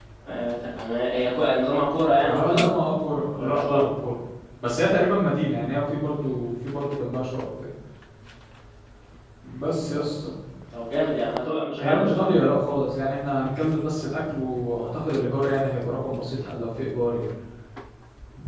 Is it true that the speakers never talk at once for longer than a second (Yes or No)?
Yes